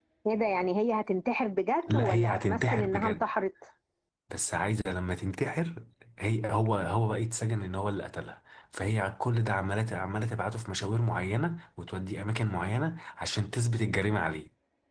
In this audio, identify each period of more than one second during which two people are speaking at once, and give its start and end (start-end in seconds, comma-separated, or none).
1.9-3.2